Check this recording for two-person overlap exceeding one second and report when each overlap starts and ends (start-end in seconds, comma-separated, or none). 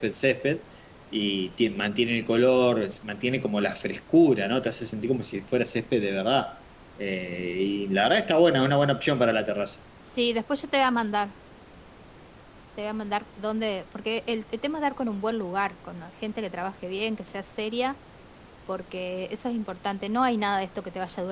none